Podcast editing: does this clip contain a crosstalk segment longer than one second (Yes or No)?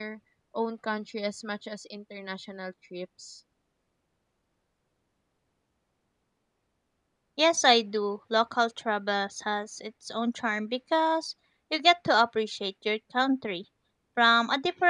No